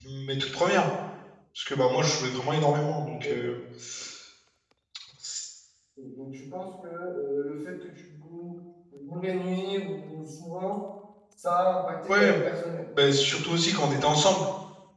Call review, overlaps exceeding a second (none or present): none